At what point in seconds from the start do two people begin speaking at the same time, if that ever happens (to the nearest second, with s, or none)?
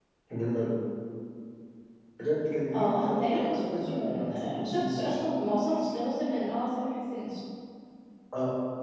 3 s